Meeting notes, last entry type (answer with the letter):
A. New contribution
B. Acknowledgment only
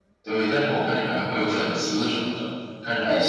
A